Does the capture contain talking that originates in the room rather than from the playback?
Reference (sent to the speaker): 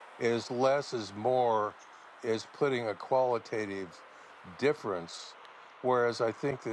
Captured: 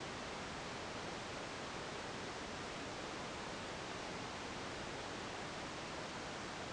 No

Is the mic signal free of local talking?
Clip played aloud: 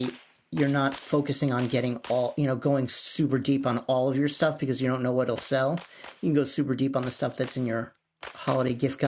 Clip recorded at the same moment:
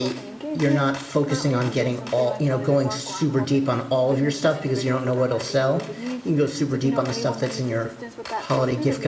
No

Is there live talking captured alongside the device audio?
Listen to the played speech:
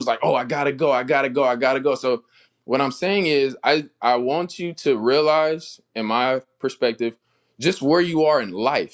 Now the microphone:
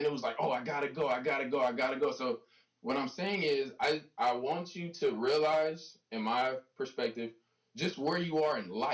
No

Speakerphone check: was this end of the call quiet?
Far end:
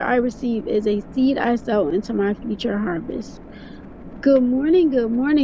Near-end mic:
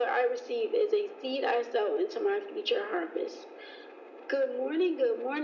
Yes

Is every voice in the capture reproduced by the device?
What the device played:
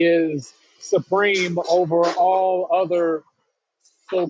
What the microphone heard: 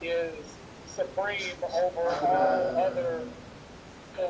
No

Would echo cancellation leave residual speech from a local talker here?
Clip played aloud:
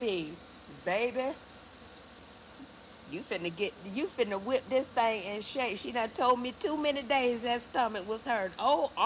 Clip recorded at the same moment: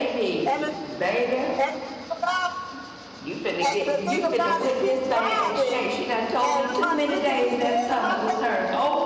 Yes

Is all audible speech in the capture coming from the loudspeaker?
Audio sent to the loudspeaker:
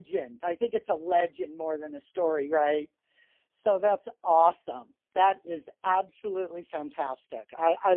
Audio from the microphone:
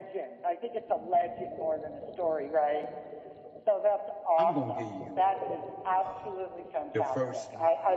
No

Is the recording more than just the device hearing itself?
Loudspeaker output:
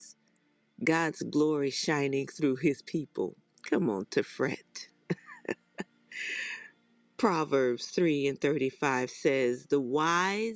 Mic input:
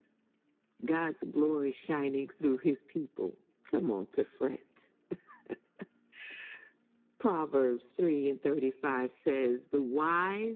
No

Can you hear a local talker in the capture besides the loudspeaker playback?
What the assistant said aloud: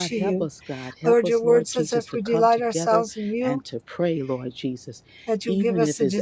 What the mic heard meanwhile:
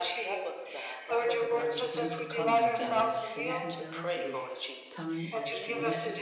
Yes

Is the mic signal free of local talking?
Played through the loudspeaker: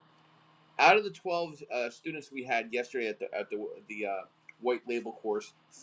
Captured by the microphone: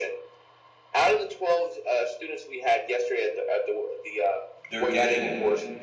No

